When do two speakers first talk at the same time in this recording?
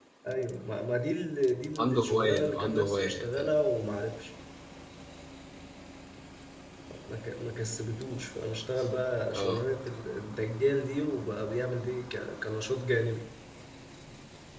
1.8 s

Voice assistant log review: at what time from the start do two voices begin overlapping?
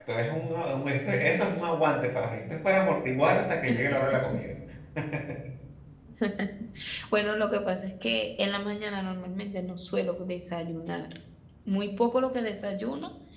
none

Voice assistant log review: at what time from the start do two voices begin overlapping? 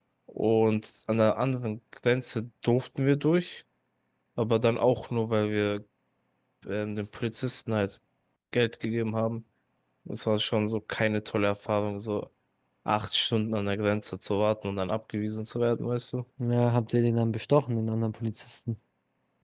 none

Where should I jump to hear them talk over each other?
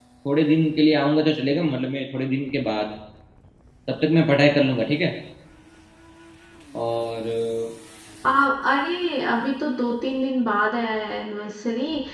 none

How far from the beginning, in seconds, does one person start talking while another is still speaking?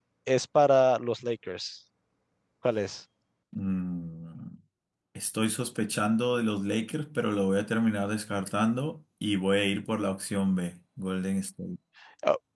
none

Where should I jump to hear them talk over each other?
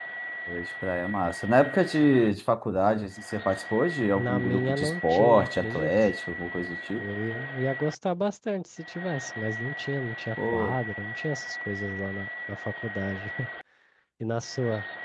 4.2 s

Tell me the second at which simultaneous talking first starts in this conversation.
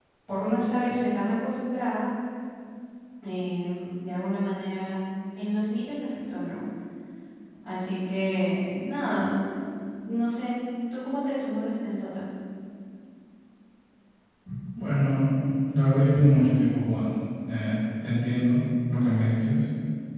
none

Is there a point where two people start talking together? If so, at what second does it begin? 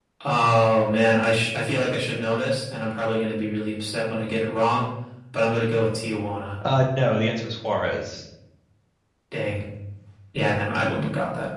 none

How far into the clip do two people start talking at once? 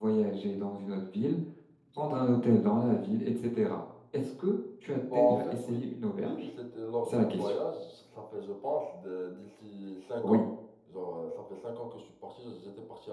5.1 s

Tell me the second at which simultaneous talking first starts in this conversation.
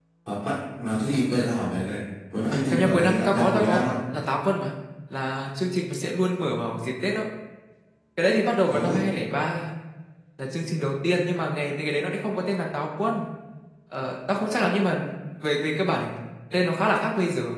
2.5 s

